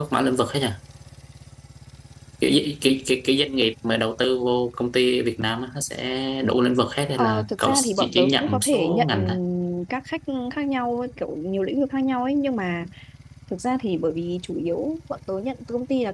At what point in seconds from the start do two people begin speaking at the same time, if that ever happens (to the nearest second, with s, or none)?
7 s